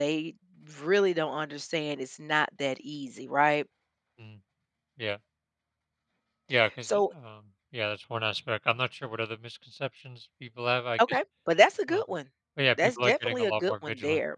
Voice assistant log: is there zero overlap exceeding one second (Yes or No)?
No